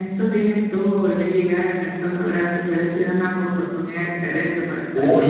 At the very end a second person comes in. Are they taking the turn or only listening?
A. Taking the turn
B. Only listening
A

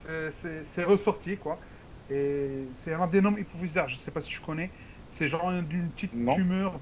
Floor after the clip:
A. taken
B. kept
B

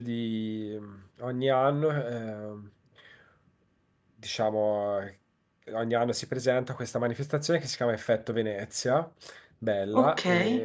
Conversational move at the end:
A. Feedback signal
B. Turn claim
A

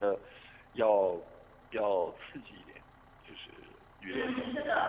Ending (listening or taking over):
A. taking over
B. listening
A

